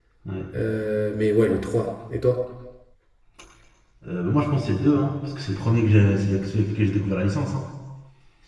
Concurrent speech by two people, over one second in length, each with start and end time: none

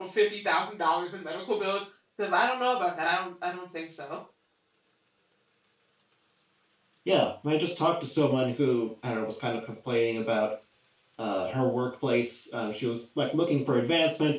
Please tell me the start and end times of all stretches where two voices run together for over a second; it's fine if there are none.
none

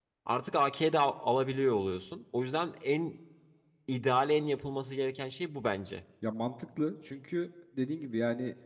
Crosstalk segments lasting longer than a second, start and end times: none

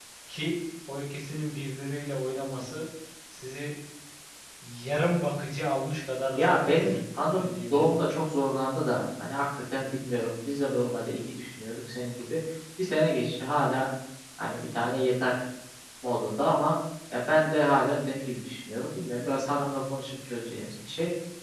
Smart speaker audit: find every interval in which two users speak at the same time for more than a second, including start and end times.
6.4-7.9

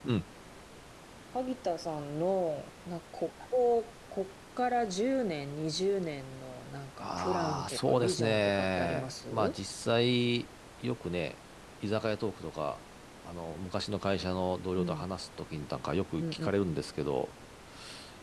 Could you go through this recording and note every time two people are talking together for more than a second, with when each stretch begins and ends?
7.0-9.6

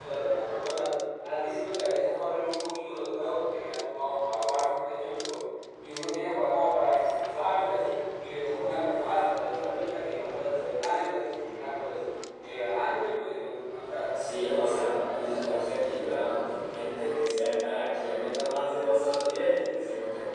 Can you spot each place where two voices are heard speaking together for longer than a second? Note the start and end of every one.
14.1-15.6

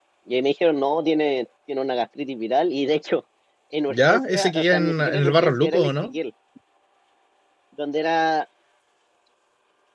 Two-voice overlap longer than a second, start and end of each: 3.9-6.1

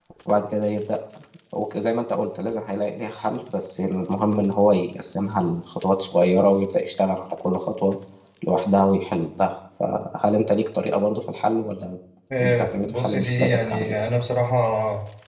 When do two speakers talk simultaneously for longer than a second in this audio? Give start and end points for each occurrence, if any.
12.4-13.9

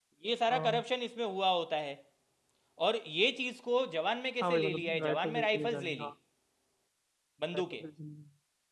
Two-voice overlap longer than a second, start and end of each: 4.4-6.1

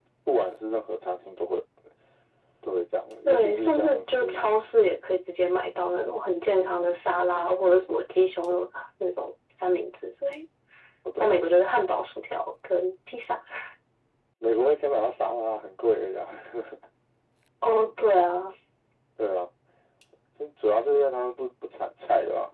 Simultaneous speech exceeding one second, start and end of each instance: 3.2-4.5

